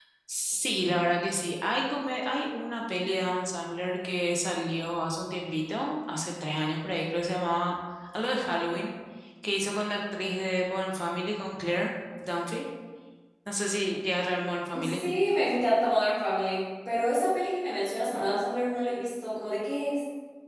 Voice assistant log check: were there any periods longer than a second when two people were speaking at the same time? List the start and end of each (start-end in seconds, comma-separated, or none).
none